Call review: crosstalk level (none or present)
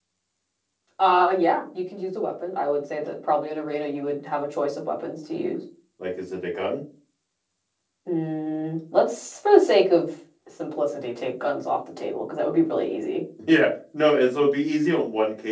none